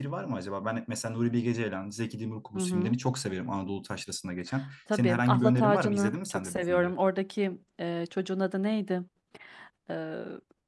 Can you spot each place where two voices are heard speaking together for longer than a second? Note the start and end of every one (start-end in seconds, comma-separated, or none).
4.9-6.9